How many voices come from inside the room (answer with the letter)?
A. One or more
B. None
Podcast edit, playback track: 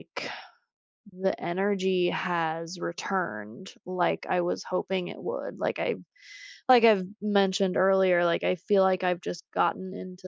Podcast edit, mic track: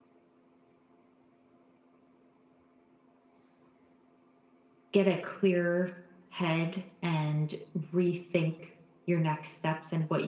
A